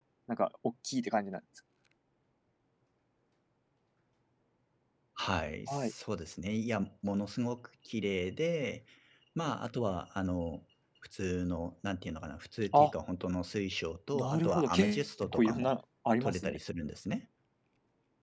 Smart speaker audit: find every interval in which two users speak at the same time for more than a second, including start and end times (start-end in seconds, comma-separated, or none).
14.1-15.7